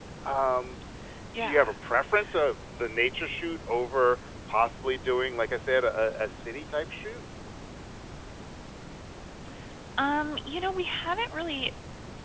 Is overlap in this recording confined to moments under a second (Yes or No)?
Yes